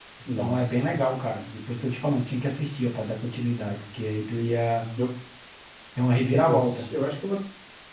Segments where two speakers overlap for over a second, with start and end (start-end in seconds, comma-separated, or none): none